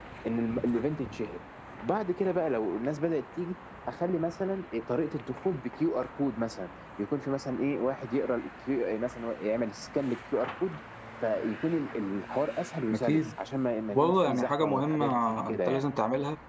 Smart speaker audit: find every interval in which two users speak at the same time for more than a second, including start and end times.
13.9-15.9

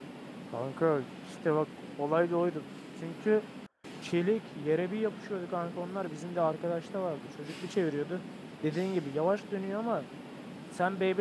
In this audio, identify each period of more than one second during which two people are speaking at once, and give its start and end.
none

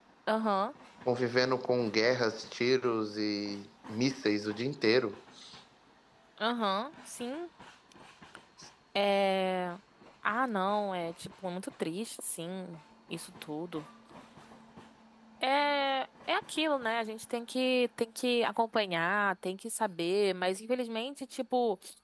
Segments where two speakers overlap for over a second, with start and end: none

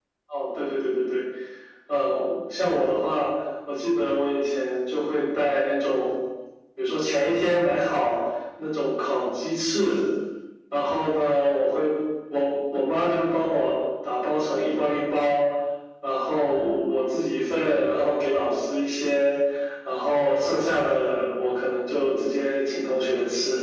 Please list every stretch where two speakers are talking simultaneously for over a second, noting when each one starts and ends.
none

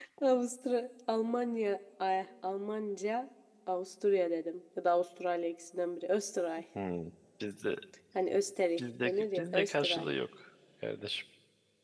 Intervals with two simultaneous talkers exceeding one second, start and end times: 8.8-10.1

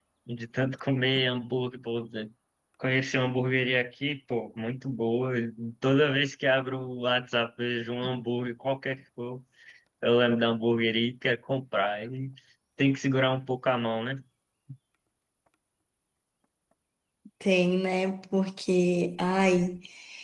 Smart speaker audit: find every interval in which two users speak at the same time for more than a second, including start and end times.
none

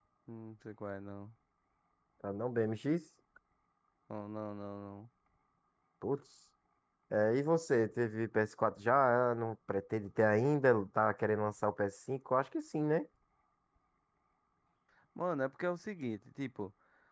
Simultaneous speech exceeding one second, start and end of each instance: none

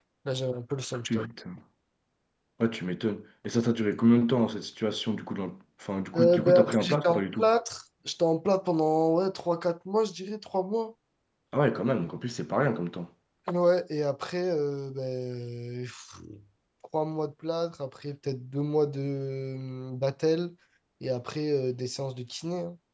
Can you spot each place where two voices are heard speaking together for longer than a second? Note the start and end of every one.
6.2-7.5

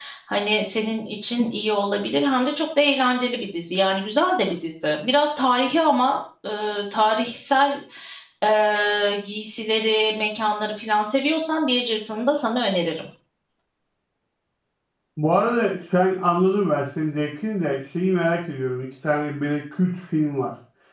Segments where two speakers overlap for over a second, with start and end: none

